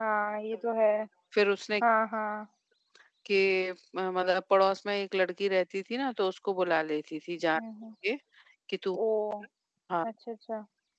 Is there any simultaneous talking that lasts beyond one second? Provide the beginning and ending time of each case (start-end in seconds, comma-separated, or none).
none